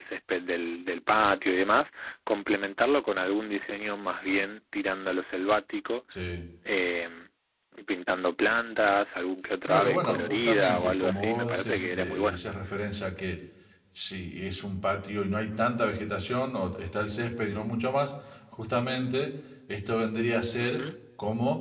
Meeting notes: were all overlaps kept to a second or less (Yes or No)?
No